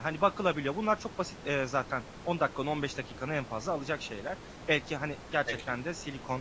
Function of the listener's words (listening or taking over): listening